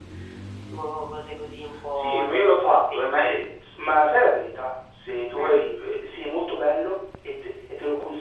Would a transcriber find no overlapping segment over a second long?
No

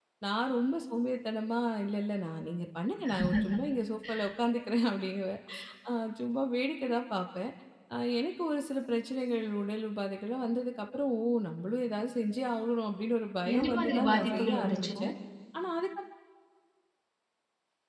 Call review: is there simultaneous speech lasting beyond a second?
Yes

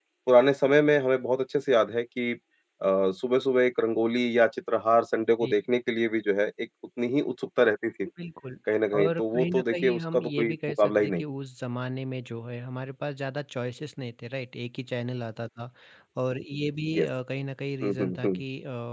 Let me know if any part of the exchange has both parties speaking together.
Yes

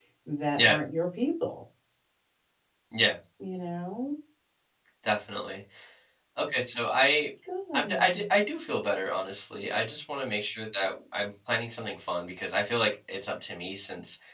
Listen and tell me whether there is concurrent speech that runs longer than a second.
No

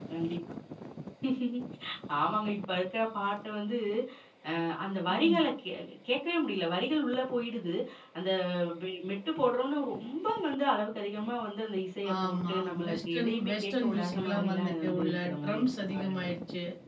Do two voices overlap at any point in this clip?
Yes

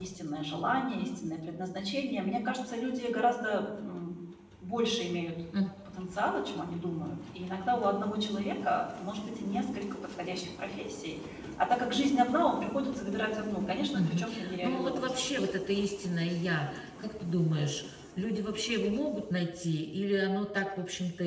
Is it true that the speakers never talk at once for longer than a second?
No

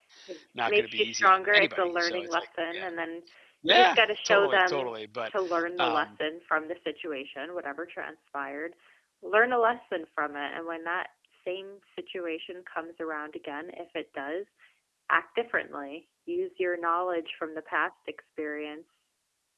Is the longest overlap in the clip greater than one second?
Yes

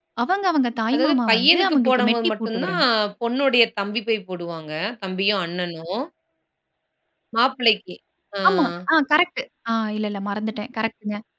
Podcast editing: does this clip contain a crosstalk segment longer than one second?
Yes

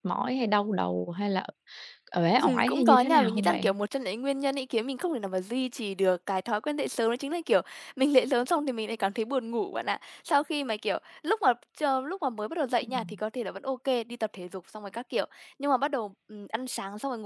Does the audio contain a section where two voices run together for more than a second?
Yes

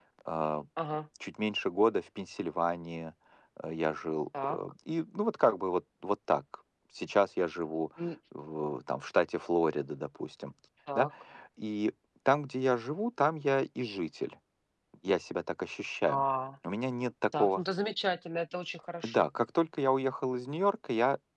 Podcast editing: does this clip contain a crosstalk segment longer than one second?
No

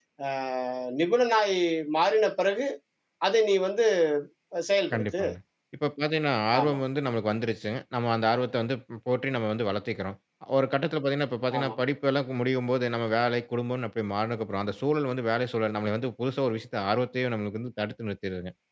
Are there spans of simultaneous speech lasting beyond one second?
No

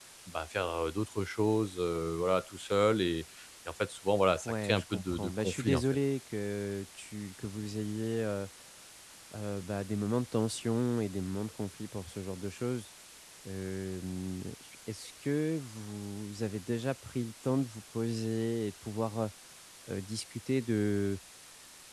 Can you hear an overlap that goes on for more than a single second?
Yes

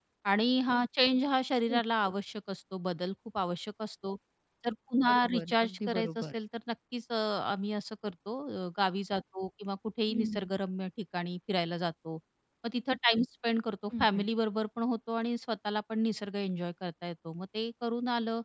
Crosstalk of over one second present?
Yes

